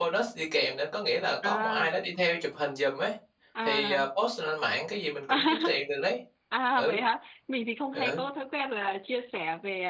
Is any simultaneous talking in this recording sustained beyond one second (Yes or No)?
No